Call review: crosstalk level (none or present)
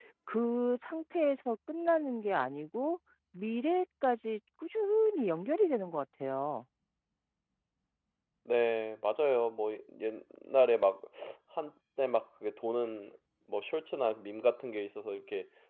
none